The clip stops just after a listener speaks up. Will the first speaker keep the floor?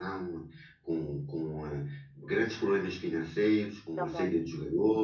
Yes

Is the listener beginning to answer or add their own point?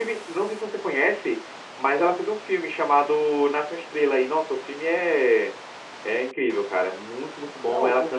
Yes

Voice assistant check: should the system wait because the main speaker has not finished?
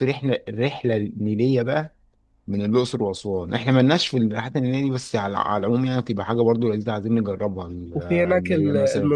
No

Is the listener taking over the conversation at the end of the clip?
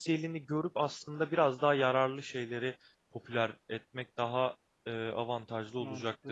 Yes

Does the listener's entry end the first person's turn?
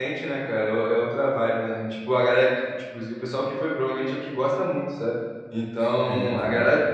No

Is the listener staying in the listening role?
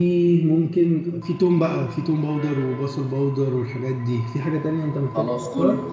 No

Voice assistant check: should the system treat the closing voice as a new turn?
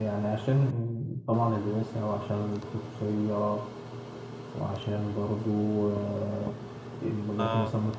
No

